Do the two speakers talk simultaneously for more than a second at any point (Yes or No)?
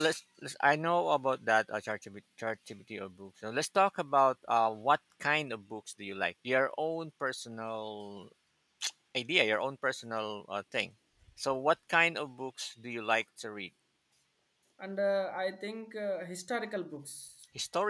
No